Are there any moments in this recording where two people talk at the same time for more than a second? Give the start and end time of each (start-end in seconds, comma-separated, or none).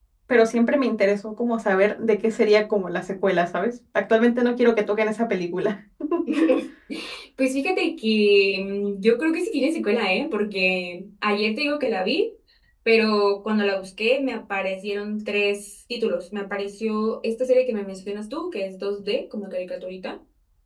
none